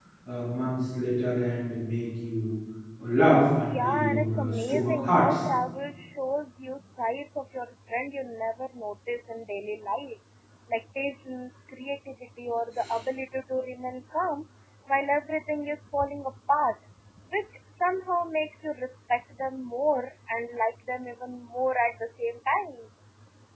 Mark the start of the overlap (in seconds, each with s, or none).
3.7 s